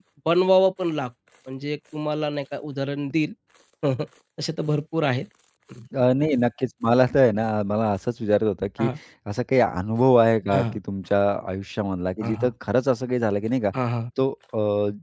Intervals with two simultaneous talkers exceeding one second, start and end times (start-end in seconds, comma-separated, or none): none